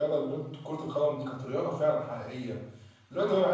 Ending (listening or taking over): listening